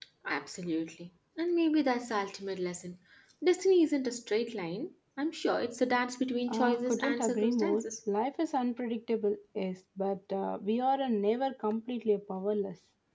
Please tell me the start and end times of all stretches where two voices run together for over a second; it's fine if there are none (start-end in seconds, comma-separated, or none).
6.5-7.9